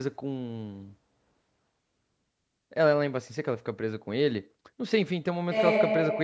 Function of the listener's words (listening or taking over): listening